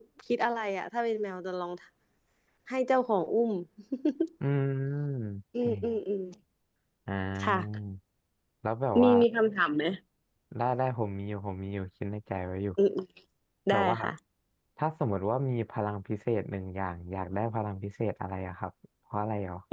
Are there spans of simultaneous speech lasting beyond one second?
No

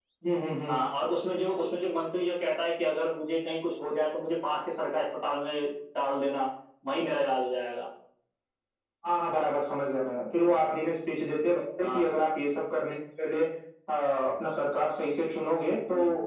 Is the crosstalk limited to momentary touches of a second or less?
Yes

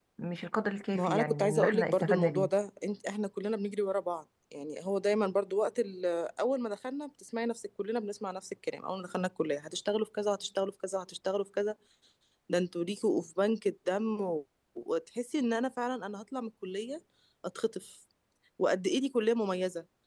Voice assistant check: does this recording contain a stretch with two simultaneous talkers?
Yes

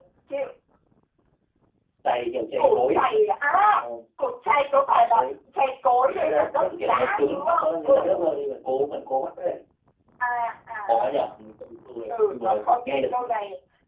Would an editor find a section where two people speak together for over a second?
Yes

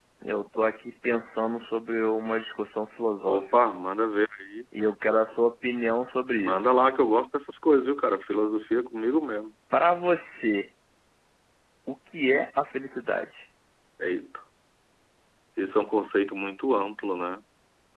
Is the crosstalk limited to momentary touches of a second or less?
Yes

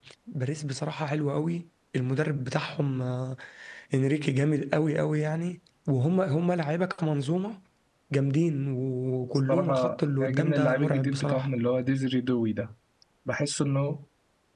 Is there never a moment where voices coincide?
No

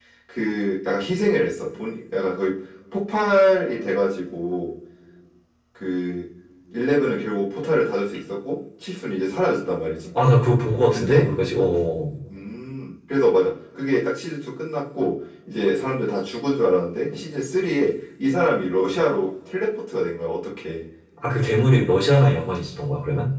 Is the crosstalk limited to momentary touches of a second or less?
Yes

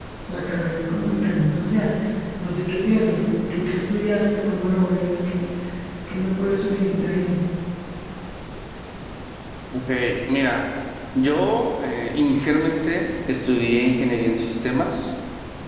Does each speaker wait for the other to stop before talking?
Yes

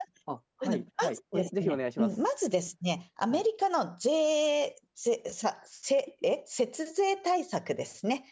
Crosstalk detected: Yes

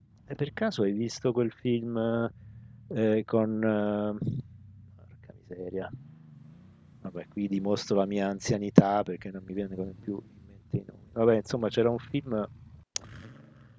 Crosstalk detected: No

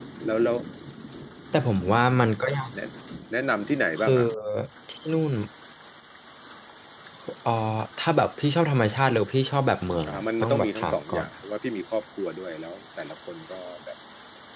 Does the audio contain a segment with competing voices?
Yes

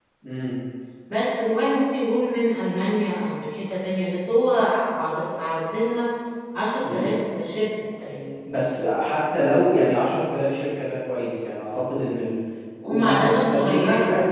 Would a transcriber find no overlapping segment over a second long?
No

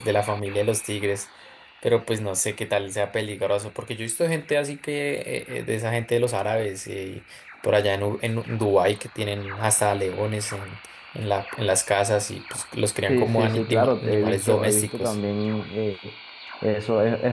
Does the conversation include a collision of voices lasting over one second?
Yes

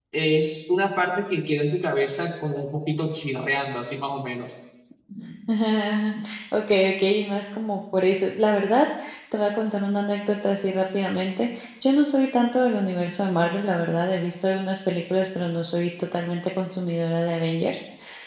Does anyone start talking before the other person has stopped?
No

